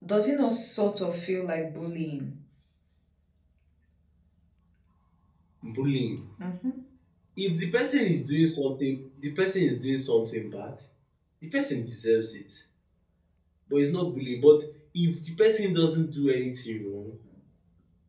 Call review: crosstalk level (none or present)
none